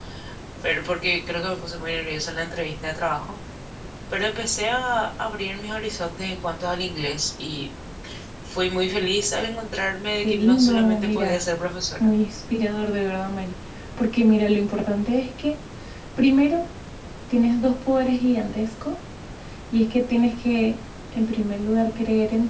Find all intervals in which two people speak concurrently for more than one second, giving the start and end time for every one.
10.2-11.4

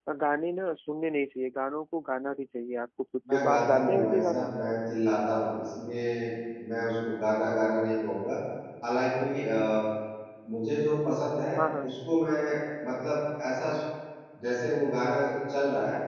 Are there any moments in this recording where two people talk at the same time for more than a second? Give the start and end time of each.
3.3-4.6

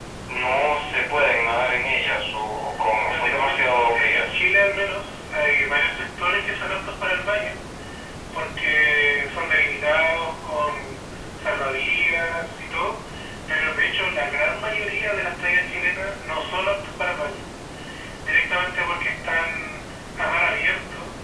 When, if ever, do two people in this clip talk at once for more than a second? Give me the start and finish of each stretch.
3.1-4.5

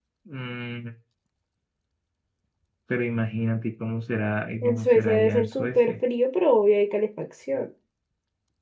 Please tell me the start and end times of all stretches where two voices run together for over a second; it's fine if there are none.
4.6-5.9

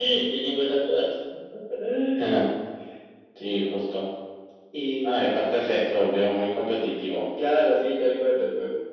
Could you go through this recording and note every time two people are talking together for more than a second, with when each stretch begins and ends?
none

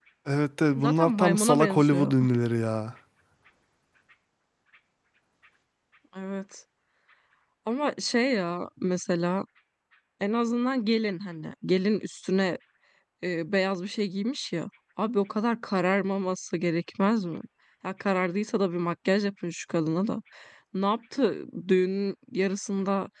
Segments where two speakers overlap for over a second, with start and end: 0.8-2.1

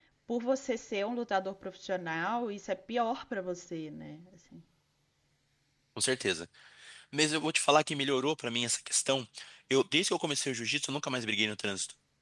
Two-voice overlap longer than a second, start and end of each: none

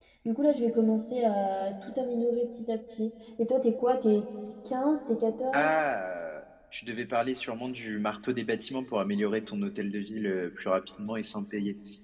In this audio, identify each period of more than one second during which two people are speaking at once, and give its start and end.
none

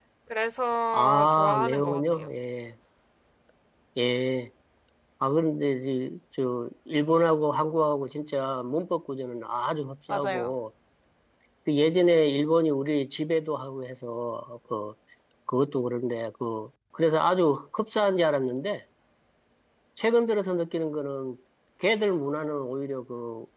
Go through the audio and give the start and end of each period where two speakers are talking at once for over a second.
0.9-2.3

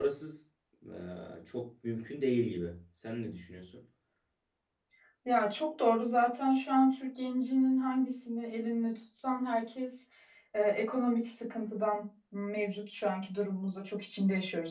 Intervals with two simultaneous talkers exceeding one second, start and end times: none

